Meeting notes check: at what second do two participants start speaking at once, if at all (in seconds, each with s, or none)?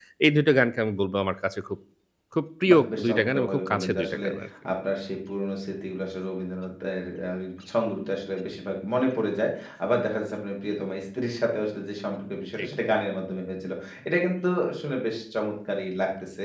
2.7 s